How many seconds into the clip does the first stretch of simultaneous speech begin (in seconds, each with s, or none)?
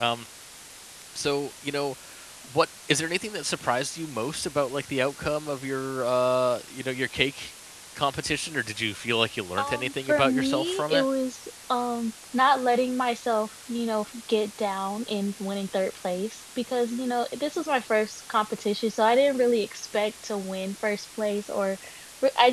9.6 s